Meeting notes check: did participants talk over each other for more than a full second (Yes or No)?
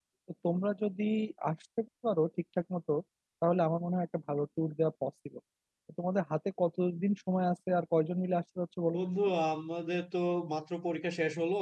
No